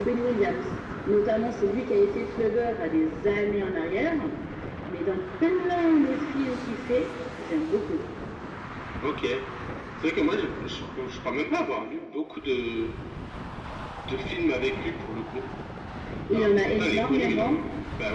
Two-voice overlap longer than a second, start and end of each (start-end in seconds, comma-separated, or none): 16.3-17.6